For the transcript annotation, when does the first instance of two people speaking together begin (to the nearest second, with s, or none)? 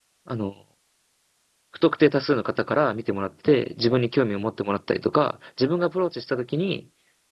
none